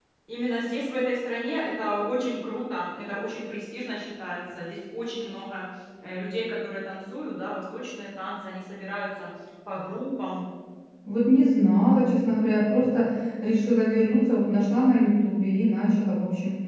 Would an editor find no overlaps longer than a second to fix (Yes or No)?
Yes